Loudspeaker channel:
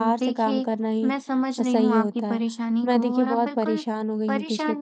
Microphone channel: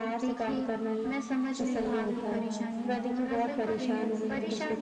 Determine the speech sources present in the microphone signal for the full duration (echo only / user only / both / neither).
both